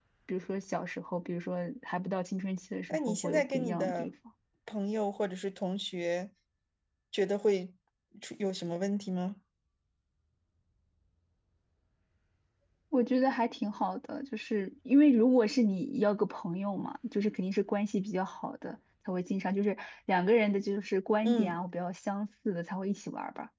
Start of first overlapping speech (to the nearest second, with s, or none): 3 s